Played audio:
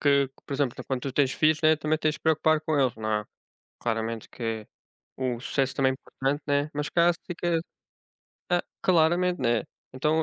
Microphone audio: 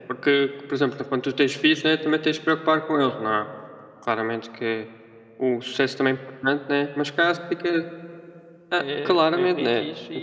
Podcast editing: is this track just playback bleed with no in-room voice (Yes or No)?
No